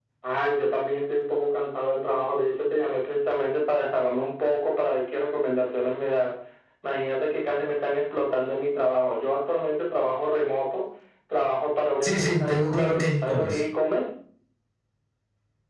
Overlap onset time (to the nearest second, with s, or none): 12 s